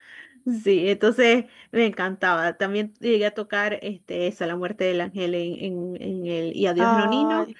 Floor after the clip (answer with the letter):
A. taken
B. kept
B